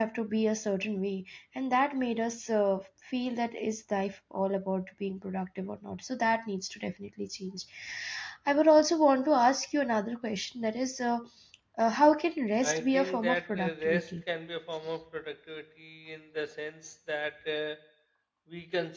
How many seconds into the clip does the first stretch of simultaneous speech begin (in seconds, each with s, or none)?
12.6 s